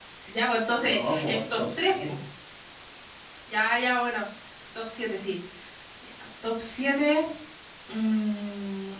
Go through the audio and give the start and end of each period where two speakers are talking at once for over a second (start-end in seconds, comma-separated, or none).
0.8-2.1